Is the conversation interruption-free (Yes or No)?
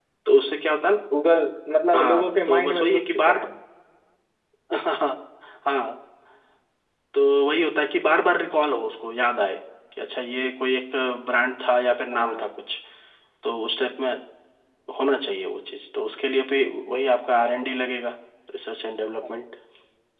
No